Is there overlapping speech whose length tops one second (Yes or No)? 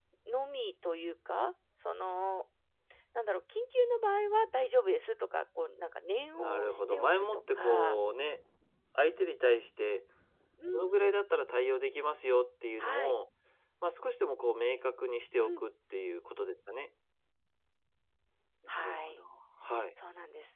Yes